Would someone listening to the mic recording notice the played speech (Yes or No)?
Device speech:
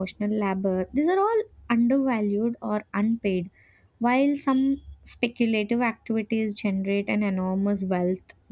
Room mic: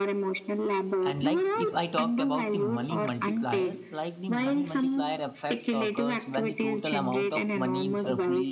Yes